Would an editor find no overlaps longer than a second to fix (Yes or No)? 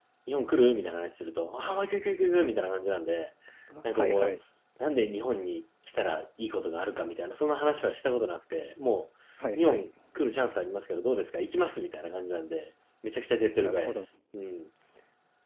Yes